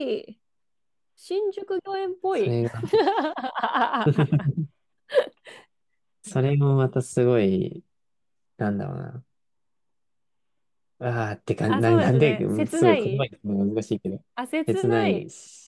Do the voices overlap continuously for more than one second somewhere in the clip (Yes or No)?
Yes